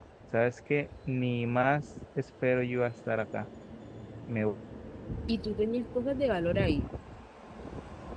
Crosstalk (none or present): none